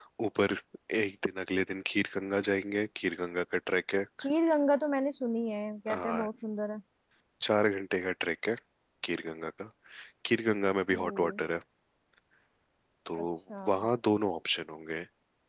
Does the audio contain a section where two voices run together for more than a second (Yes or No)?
No